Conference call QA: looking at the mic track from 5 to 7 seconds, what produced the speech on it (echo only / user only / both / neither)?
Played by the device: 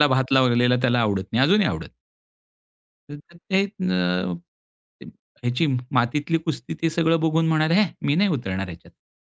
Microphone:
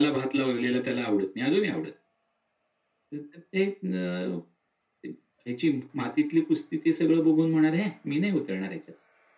echo only